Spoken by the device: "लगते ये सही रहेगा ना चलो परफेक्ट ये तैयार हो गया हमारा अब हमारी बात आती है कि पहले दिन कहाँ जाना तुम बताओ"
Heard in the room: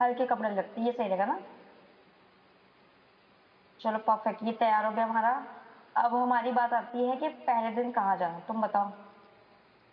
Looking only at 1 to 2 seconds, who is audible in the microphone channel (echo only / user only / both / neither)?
echo only